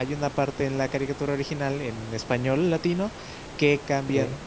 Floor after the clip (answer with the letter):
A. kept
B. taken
A